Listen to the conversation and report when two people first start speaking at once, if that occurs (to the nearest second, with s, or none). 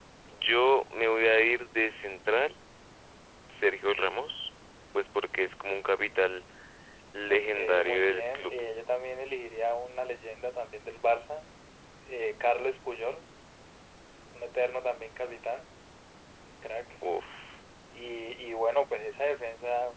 7 s